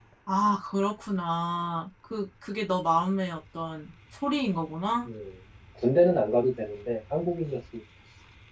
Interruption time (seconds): none

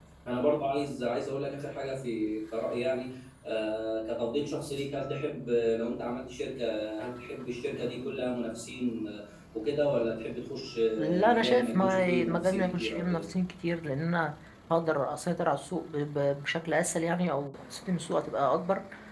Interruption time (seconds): 11.0 s

